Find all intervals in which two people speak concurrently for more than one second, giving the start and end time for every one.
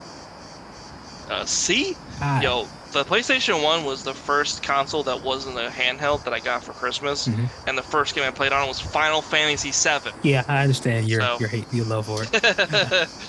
none

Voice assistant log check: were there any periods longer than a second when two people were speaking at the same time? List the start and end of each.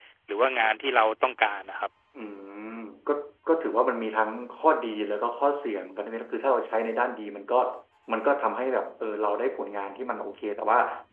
none

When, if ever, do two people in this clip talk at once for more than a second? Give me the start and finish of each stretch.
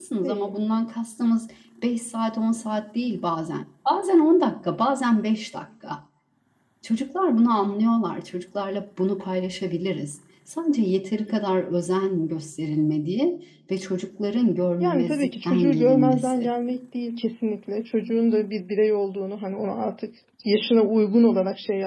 14.8-16.5

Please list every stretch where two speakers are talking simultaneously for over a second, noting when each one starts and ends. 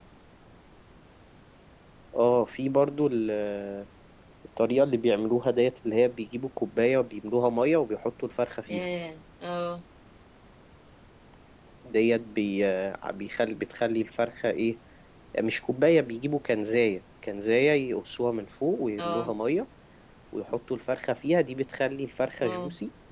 none

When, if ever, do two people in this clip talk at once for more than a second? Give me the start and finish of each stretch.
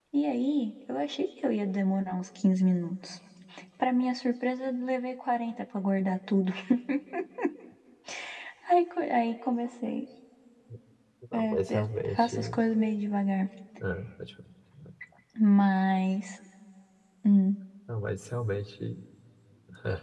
11.3-12.6

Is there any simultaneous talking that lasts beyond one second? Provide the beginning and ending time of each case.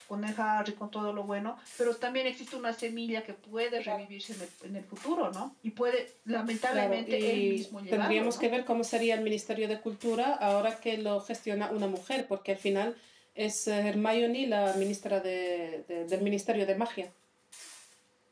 6.7-8.4

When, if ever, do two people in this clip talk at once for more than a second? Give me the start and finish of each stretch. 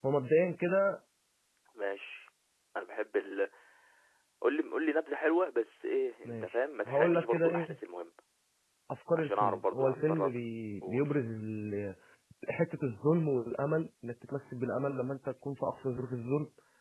6.2-7.8, 9.2-10.4

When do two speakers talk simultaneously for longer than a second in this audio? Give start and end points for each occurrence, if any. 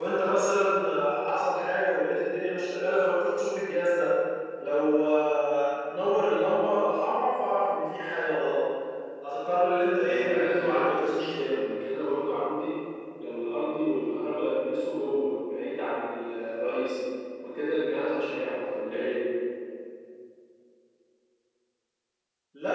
10.0-11.6

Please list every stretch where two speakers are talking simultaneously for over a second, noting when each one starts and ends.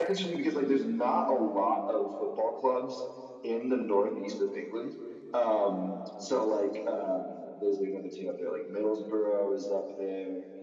none

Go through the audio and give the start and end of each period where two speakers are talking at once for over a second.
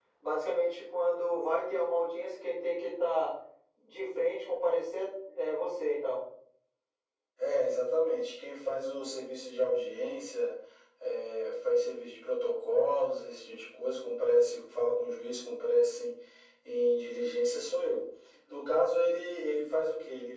none

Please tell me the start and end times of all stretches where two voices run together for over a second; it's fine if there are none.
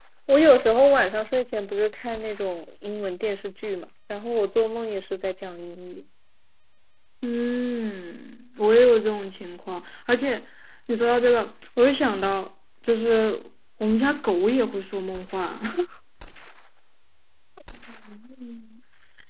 none

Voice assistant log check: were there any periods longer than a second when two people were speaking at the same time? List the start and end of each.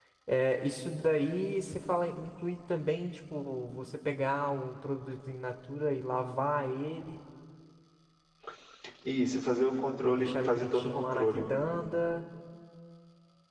10.0-11.4

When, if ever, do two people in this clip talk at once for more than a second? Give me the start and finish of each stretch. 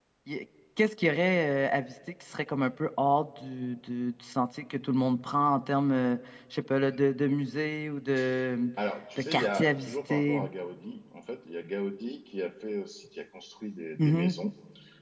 9.2-10.4

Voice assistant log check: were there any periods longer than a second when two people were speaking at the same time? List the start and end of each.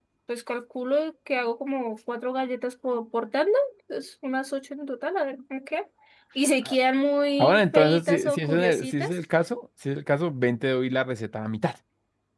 7.4-9.2

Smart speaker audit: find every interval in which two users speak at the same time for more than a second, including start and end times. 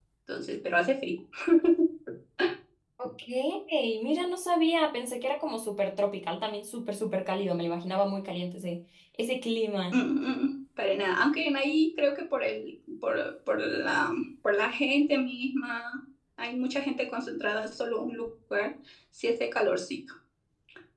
none

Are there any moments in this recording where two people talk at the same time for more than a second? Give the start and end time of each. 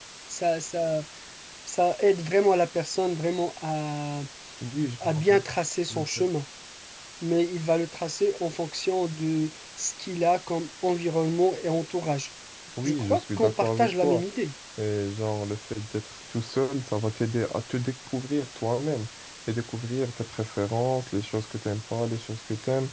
12.8-14.2

